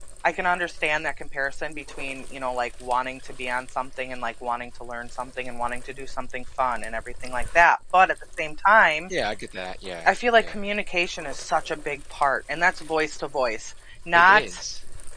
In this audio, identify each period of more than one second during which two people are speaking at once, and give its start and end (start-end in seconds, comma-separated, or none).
none